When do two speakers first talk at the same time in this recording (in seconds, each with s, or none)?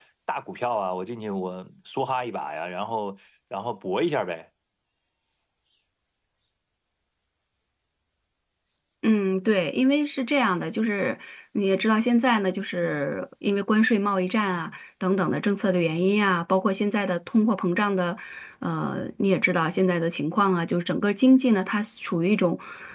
none